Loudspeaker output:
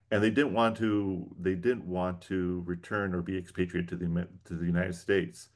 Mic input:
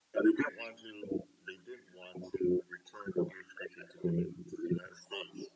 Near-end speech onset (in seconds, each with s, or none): none